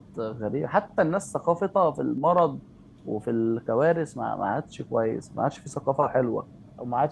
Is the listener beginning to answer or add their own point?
Yes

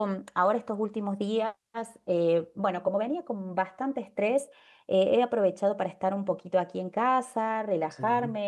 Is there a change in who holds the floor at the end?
No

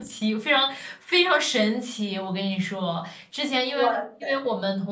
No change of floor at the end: Yes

